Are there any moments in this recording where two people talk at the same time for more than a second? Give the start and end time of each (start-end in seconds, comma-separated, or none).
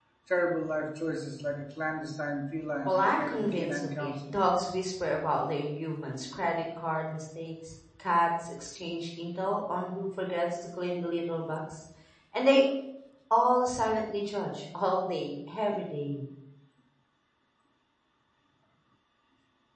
2.9-4.3